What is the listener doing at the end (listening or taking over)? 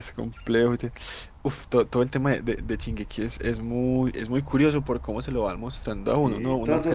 taking over